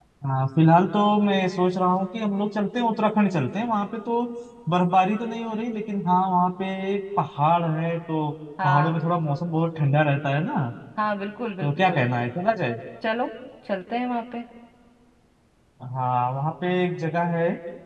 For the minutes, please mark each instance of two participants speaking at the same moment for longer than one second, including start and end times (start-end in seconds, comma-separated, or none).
none